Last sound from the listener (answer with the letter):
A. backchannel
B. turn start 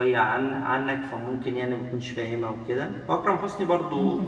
A